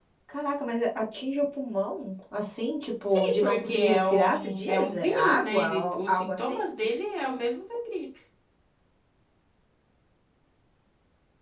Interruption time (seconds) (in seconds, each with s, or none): 3.0 s